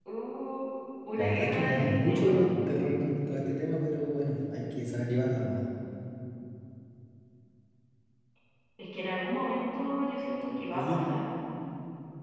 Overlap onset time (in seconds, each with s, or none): 1.2 s